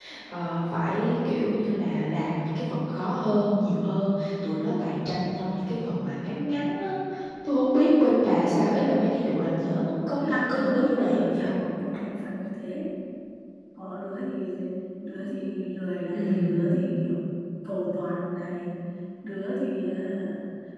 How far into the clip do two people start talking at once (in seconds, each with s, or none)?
10.2 s